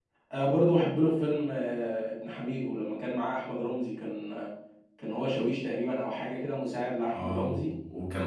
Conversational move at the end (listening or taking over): taking over